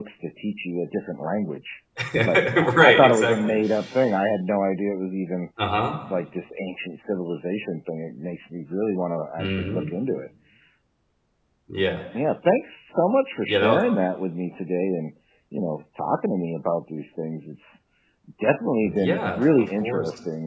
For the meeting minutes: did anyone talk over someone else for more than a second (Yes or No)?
Yes